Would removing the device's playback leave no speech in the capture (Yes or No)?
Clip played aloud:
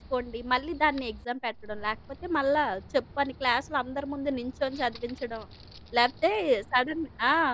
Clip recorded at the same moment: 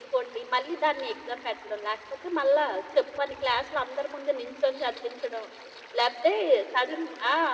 Yes